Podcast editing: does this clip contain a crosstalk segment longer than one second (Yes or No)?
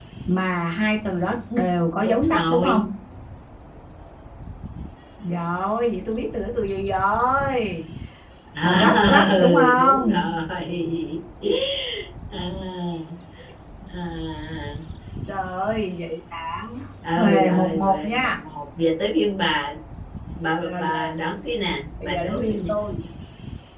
Yes